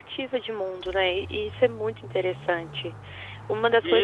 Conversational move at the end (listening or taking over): taking over